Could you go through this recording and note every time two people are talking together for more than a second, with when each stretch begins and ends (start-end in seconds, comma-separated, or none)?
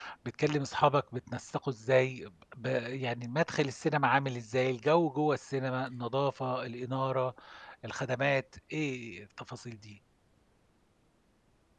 none